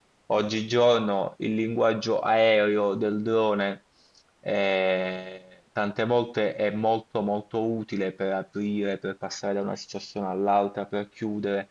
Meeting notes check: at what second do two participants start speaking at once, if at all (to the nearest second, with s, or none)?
none